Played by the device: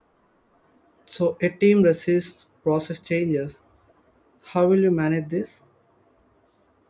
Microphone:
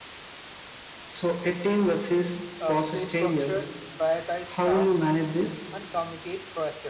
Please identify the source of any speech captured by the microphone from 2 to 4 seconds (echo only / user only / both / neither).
both